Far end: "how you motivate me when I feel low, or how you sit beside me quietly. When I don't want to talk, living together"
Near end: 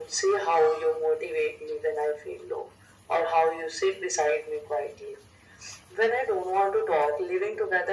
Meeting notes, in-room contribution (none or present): none